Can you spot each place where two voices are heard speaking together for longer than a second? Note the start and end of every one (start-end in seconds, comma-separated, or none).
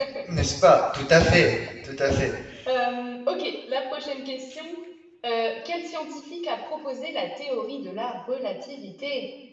none